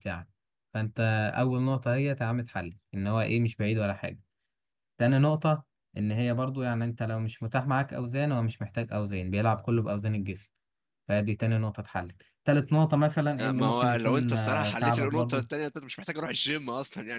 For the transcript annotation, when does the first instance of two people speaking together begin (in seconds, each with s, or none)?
13.4 s